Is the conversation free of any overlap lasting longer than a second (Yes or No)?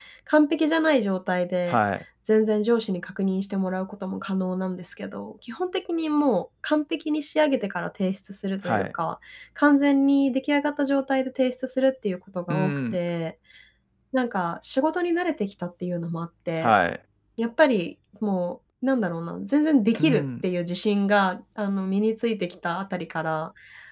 Yes